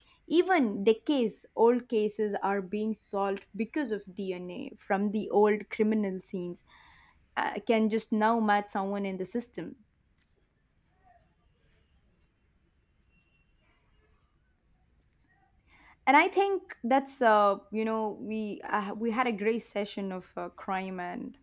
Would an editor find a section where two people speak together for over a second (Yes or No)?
No